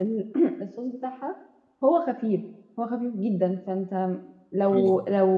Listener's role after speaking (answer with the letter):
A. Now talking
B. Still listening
B